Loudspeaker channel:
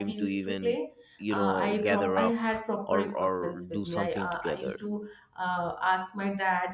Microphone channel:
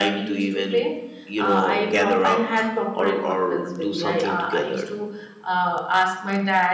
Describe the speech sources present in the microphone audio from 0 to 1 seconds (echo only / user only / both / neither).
echo only